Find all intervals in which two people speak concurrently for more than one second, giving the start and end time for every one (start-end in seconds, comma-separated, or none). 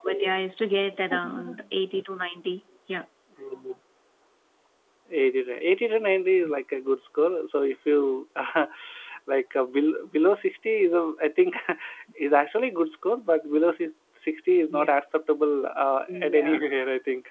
none